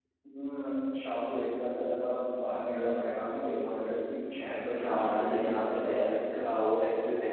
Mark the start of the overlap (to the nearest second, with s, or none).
5 s